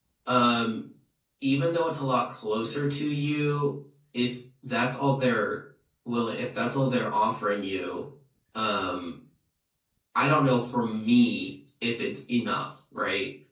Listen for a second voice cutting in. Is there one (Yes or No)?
No